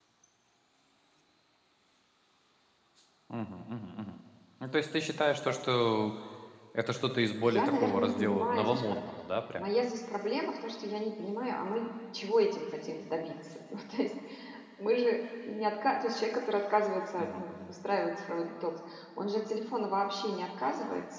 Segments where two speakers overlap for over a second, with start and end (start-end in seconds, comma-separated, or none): 7.4-9.0